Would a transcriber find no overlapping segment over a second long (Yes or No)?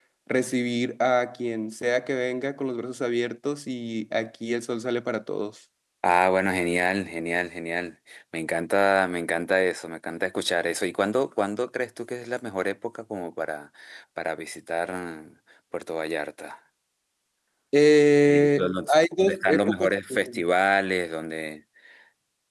No